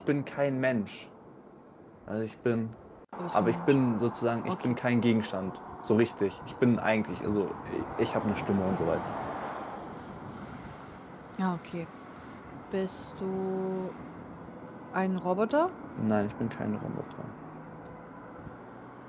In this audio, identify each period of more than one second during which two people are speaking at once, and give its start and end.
none

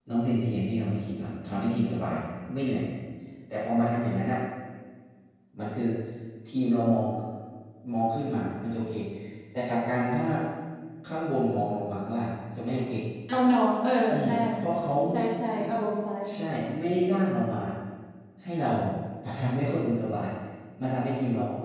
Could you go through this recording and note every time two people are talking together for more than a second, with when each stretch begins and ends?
none

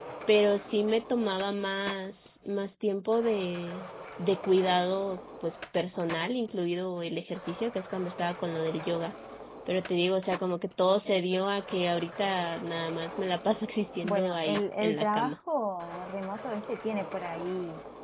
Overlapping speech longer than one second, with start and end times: 14.0-15.3

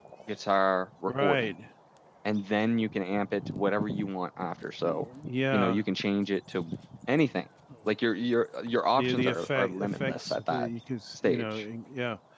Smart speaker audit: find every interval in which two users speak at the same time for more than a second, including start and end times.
8.9-10.7

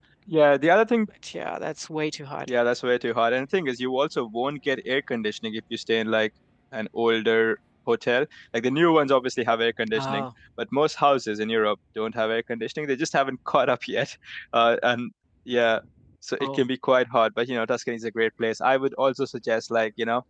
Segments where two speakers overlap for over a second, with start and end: none

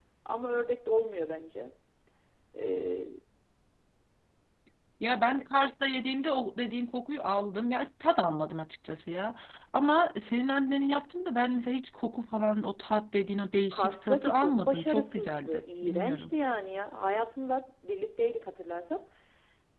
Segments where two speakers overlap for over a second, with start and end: 13.7-16.2

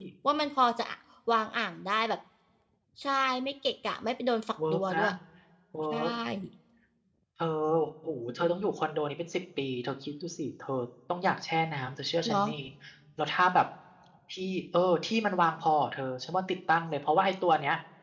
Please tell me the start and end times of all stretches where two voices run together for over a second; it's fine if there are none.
none

